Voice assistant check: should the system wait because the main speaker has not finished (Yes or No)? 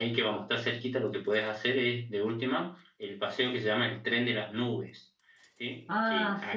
Yes